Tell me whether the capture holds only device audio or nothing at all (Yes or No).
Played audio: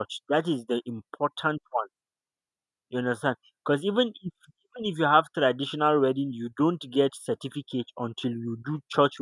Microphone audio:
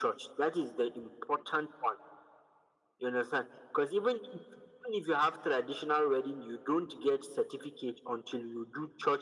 Yes